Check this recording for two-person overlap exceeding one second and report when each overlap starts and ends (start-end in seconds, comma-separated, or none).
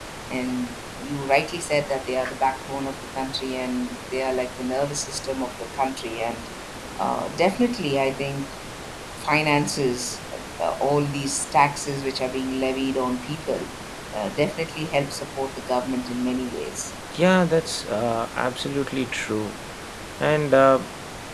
none